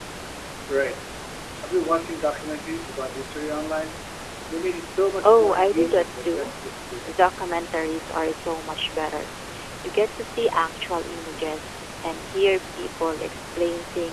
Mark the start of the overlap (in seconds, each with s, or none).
5.2 s